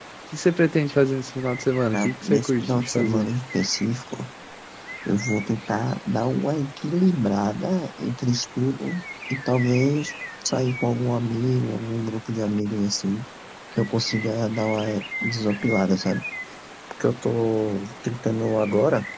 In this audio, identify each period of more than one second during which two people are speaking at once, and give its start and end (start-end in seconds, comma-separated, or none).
1.9-3.3